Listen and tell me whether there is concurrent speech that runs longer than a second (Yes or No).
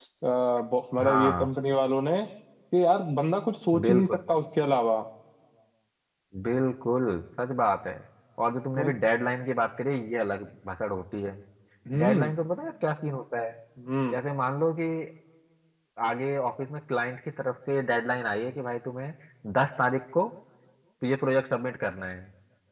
No